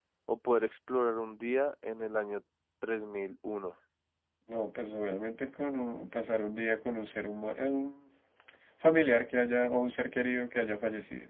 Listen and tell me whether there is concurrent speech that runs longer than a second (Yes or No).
No